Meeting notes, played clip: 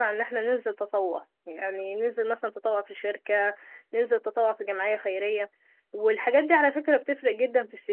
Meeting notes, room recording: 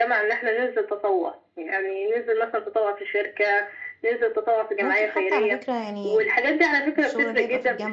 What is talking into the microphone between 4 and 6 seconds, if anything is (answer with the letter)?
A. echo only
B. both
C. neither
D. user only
B